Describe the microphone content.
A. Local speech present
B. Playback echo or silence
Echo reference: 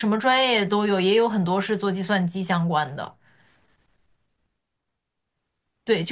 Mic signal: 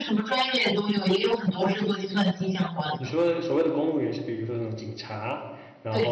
A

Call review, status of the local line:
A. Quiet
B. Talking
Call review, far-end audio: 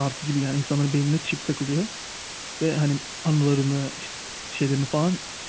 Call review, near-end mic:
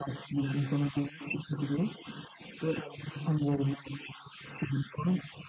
A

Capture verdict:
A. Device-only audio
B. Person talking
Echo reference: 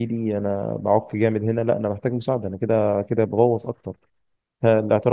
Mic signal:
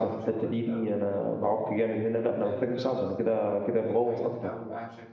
B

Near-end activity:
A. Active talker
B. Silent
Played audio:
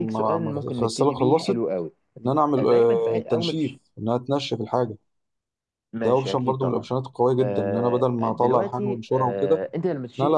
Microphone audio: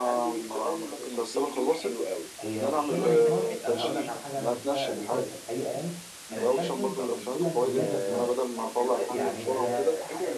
A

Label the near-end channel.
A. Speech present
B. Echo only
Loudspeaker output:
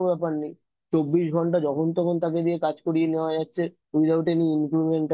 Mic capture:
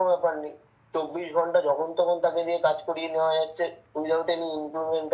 B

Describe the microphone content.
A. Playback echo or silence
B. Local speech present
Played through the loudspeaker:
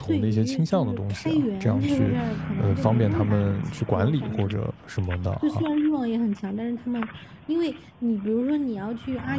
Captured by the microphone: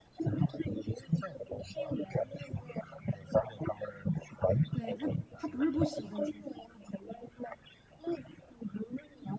B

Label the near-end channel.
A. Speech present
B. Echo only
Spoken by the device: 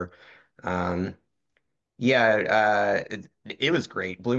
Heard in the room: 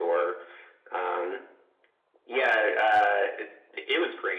B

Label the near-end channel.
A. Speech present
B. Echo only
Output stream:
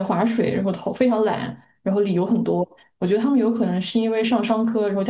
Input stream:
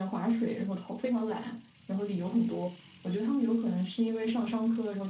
B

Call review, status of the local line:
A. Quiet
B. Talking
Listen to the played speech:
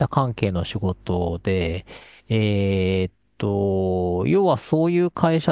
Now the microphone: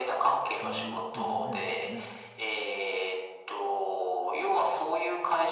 B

